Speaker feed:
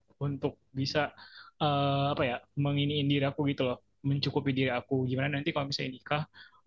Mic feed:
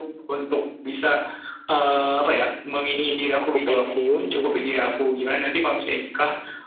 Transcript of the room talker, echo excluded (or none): aku pensiun mungkin